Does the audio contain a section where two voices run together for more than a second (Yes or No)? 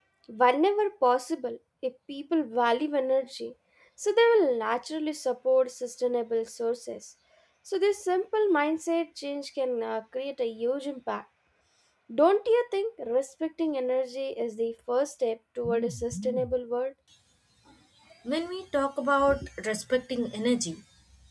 No